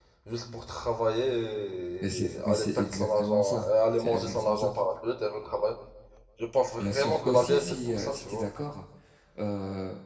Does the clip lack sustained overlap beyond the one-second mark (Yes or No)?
No